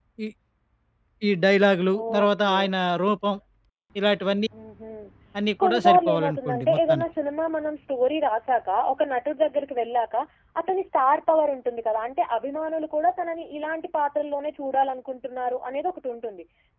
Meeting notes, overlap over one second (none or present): present